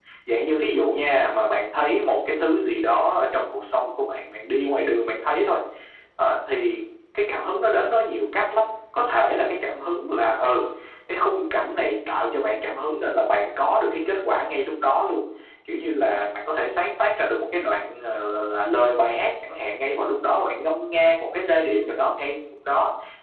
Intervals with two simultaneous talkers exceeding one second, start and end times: none

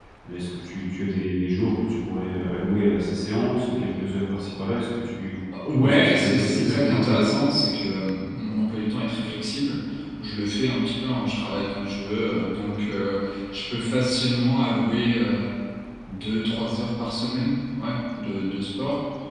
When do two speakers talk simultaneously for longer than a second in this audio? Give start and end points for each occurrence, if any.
5.8-7.4

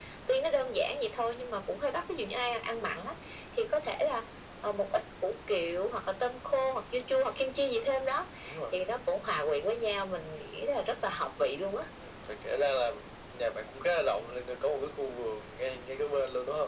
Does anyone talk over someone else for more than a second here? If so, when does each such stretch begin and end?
none

